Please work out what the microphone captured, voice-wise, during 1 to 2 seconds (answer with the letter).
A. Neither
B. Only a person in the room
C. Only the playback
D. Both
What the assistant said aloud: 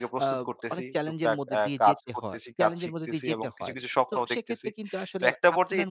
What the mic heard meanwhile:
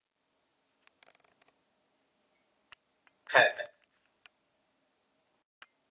A